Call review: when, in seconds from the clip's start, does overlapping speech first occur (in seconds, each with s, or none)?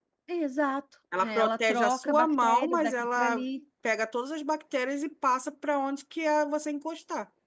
1.2 s